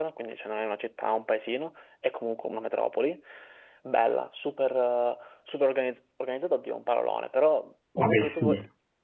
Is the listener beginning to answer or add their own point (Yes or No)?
No